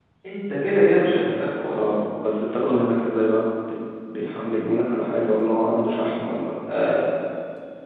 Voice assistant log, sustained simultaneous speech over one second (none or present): none